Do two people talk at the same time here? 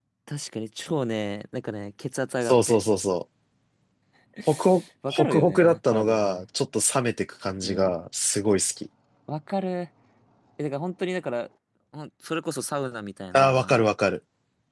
Yes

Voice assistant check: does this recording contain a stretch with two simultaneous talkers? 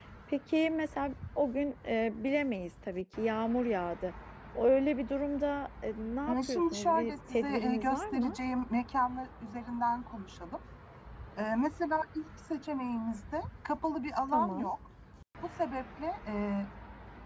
Yes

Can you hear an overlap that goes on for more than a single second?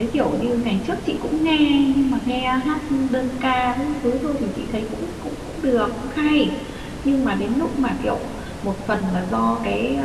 No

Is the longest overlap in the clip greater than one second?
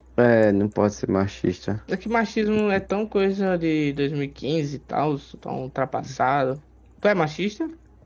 No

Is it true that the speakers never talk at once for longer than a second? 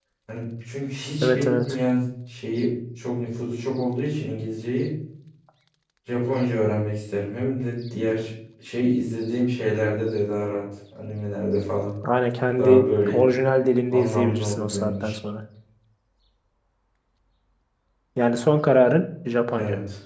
No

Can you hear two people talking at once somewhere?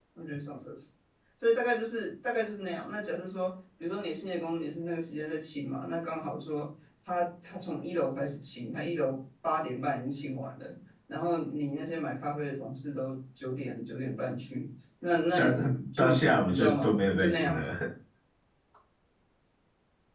Yes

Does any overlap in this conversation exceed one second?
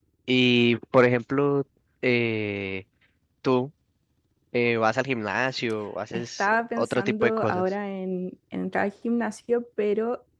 Yes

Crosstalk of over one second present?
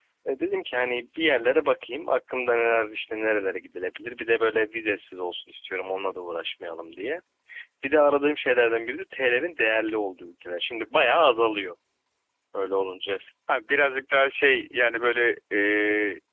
No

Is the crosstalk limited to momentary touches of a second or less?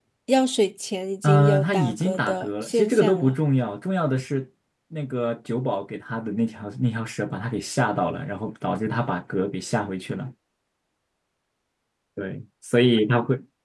No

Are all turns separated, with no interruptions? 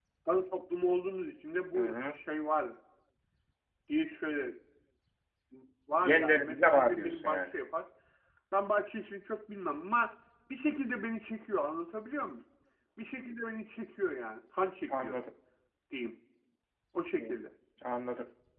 No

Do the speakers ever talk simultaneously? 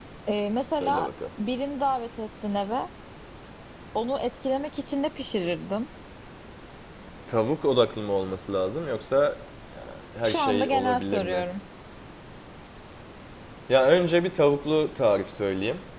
Yes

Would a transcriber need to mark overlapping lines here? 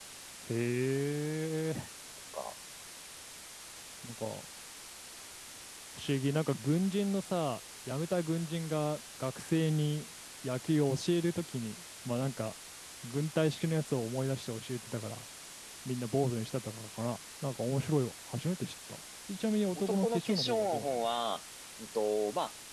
Yes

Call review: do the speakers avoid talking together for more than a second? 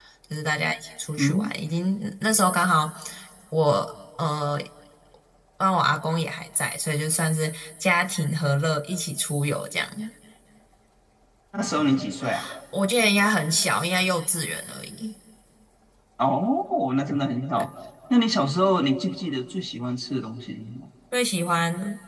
Yes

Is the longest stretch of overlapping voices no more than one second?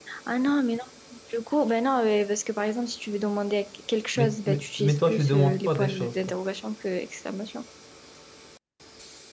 No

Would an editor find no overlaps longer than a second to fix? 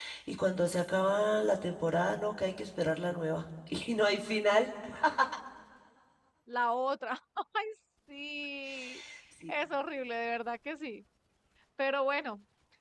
Yes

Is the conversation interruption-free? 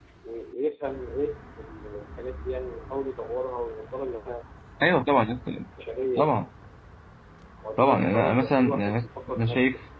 No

